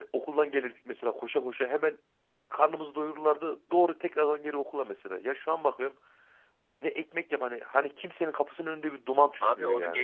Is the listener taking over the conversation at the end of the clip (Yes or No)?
Yes